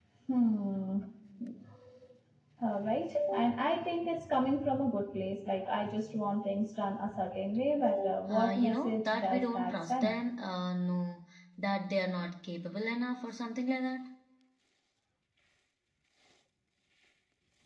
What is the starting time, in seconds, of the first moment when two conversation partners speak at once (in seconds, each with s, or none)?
8.3 s